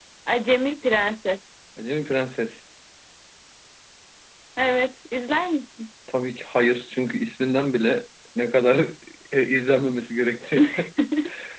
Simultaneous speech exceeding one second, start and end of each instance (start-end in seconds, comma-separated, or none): none